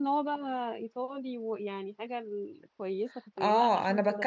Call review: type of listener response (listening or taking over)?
taking over